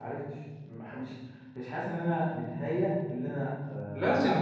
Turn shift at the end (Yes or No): Yes